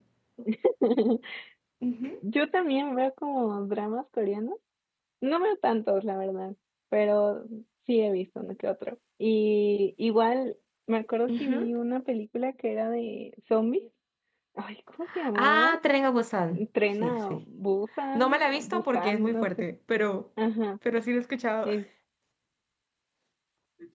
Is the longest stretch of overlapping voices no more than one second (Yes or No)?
No